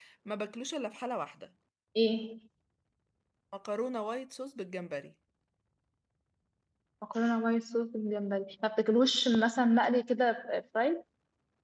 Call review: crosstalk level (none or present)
none